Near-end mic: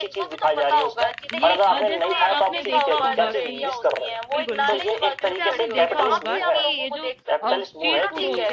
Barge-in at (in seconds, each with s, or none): 1.3 s